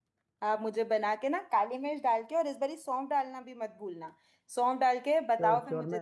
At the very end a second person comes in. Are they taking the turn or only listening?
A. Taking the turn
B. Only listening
A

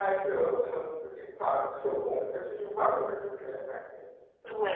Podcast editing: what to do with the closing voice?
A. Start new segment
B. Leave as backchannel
A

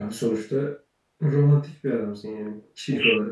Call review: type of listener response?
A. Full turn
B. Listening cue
A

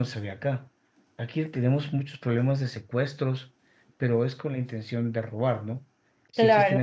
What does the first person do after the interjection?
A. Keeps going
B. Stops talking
A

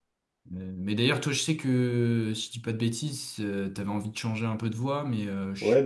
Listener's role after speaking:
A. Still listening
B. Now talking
B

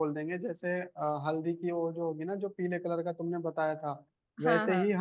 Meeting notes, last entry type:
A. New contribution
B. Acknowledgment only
B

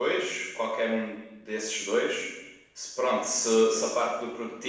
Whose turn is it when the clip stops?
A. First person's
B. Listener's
A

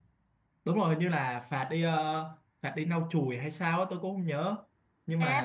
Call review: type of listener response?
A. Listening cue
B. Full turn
B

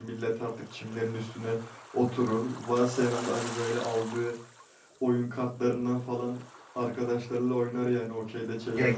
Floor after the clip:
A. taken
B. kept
A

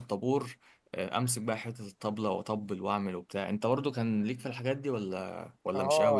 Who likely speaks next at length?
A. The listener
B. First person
A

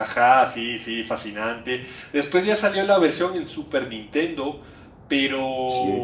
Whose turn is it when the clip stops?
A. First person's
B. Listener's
A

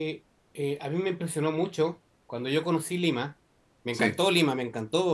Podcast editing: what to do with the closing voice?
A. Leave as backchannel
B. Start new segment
A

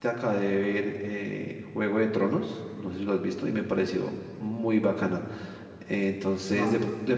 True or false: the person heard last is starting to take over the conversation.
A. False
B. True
A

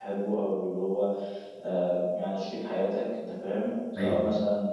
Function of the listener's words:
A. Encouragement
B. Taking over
A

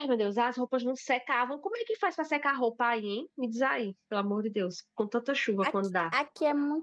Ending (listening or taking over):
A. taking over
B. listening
A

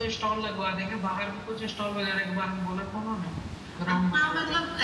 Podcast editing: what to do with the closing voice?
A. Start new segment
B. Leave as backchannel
A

